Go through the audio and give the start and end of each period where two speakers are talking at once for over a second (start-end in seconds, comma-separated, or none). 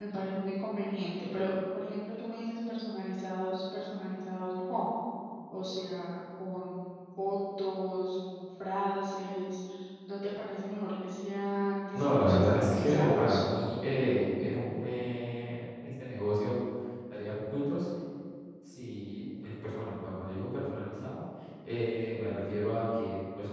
11.9-13.3